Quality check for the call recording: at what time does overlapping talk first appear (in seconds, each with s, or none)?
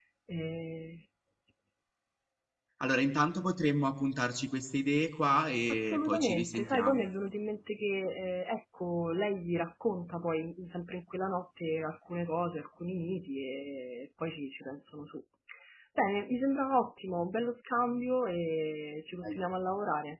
5.7 s